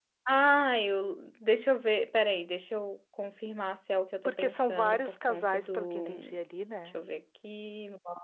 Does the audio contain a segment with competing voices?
Yes, from 4.2 s

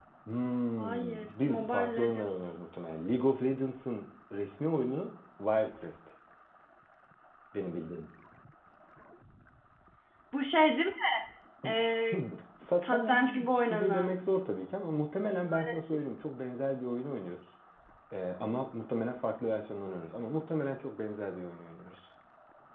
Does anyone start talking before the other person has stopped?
Yes, from 0.8 s

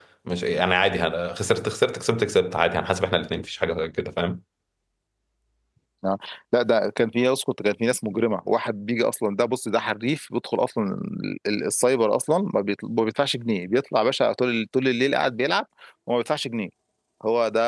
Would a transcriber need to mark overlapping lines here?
No

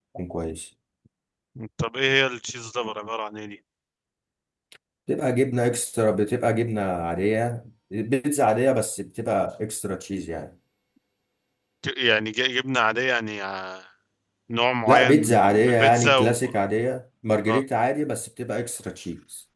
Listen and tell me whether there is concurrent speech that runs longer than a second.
Yes, from 14.9 s

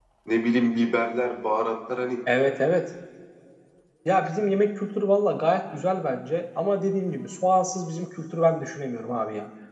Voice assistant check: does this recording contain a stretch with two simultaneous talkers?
No

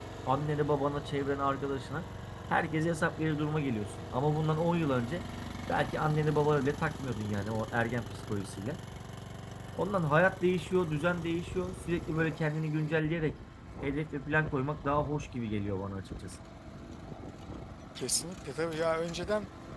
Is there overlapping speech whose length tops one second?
No

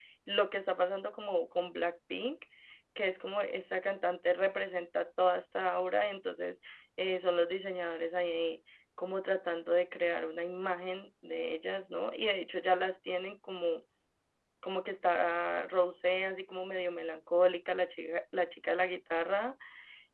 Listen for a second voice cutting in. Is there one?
No

